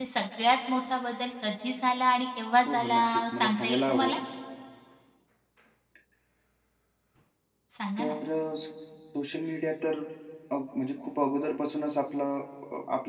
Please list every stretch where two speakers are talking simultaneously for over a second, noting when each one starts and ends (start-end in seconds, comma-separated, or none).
2.6-4.2